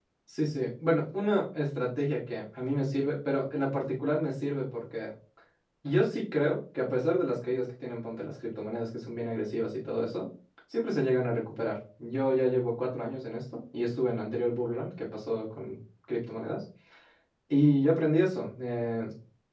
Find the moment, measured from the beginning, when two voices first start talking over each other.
none

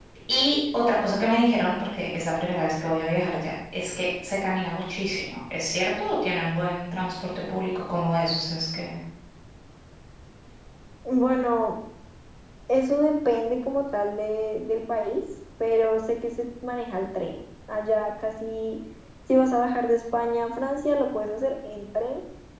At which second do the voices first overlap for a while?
none

